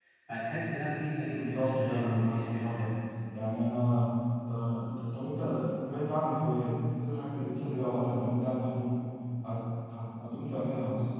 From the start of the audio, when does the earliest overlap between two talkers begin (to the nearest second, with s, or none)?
1 s